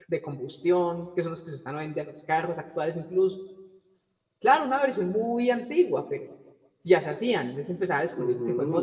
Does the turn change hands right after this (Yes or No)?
Yes